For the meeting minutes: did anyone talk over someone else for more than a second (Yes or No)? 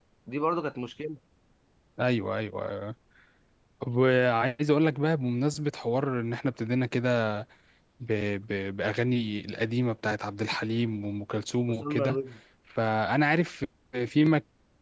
No